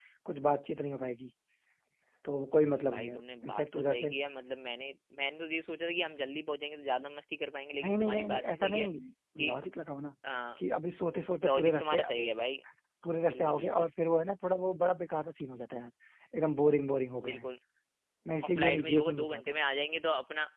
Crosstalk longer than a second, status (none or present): present